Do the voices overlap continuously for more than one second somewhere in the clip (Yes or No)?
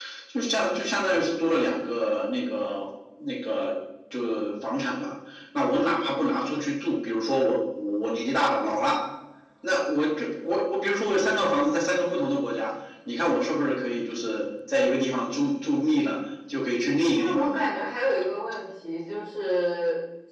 No